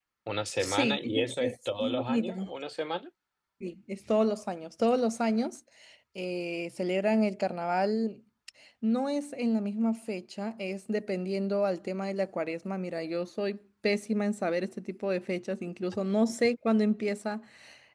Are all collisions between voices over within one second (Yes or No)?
No